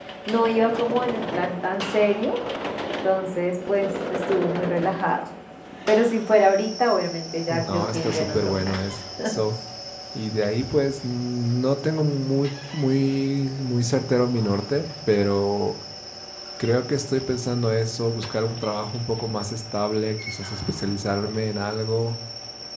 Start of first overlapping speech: 8 s

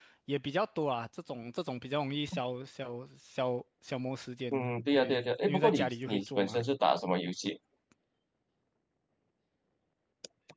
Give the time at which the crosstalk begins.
5 s

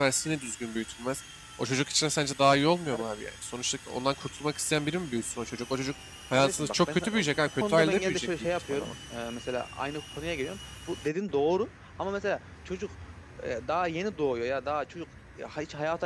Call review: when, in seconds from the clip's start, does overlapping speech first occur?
6 s

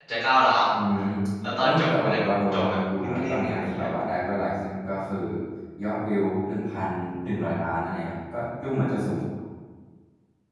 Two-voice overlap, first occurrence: 2 s

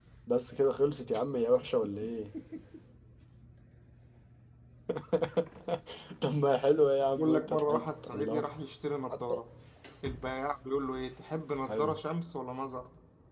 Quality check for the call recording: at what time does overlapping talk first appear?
7 s

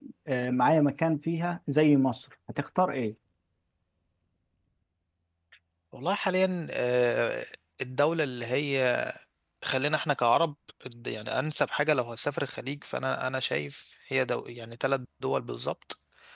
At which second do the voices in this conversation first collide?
none

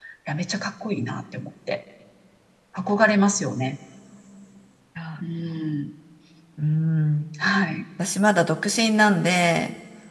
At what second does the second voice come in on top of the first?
none

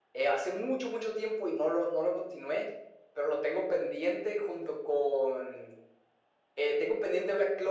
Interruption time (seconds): none

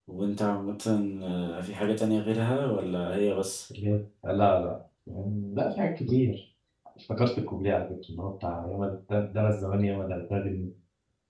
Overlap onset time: none

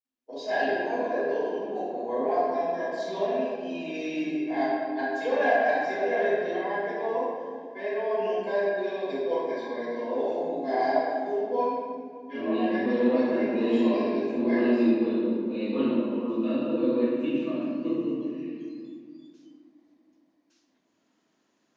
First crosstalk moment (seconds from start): 12 s

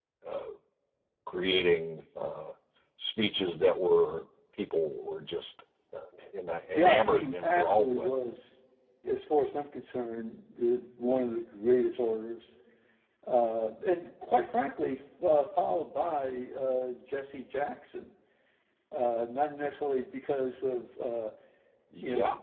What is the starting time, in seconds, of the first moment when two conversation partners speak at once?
7 s

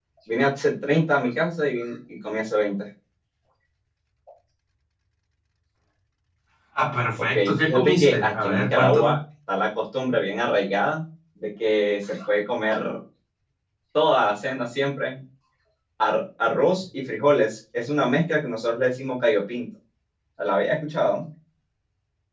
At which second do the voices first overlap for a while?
7 s

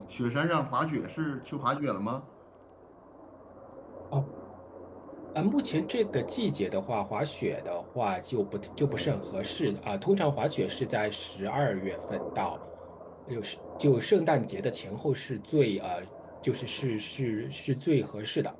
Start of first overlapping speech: none

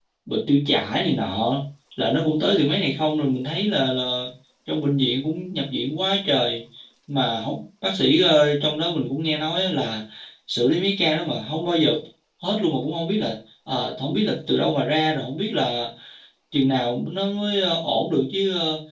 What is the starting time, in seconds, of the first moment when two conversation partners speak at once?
none

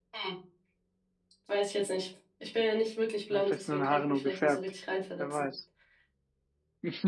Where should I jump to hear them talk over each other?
3 s

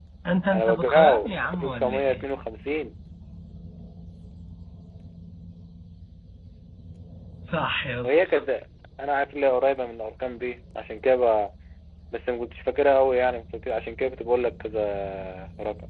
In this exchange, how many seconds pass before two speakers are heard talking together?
1 s

